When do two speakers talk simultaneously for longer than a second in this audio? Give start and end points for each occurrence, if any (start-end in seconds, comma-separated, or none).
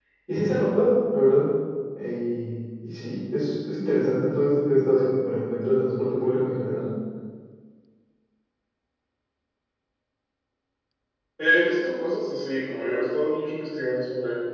none